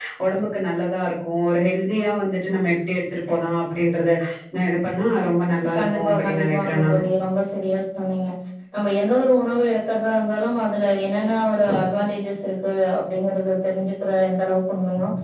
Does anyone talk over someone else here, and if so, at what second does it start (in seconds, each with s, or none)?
5.7 s